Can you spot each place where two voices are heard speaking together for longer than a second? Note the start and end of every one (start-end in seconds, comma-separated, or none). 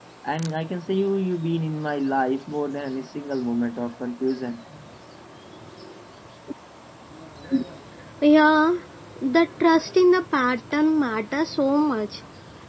none